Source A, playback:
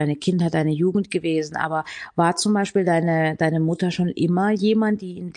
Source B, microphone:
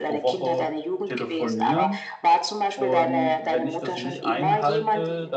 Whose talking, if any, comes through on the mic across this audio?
both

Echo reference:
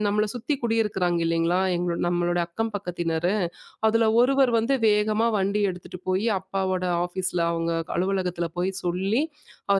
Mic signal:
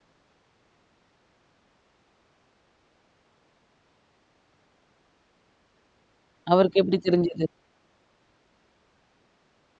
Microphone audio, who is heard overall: user only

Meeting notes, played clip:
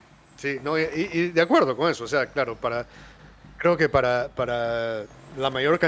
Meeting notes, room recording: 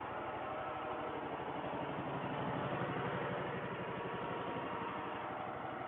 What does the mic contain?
neither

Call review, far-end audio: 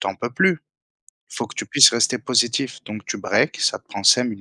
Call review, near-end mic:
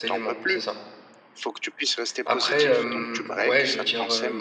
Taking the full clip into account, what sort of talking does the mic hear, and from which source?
both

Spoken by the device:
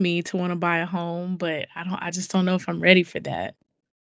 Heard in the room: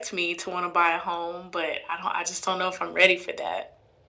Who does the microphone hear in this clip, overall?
echo only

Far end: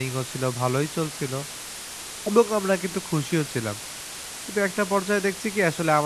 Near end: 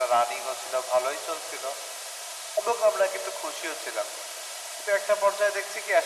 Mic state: echo only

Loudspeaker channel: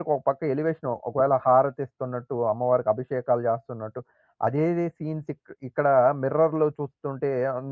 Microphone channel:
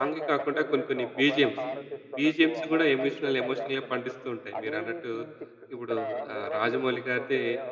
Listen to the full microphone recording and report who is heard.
both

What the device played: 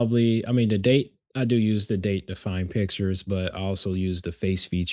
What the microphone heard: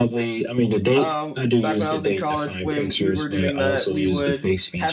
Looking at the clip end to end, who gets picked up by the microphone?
both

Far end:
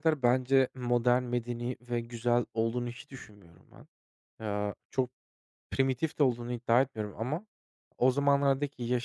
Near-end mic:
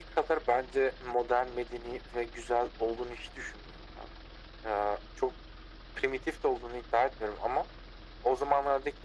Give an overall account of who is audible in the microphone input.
echo only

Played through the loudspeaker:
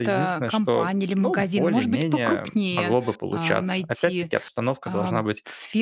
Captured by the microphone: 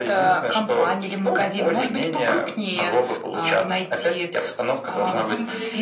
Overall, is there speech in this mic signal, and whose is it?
both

